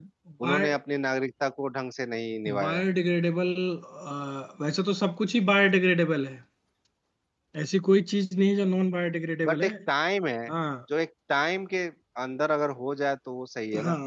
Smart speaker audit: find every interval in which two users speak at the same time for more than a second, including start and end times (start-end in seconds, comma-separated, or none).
none